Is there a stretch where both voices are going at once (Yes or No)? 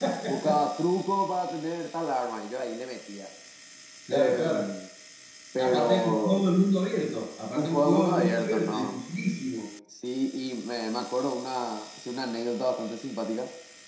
Yes